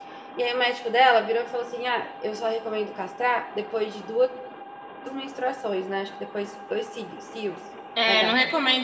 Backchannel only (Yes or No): No